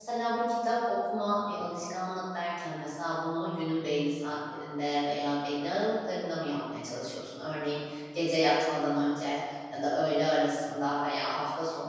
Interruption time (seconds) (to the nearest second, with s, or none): none